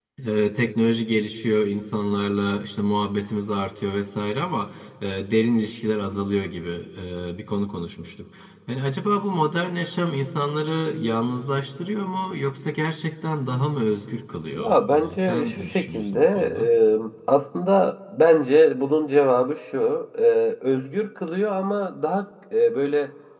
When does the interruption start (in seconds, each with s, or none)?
14.6 s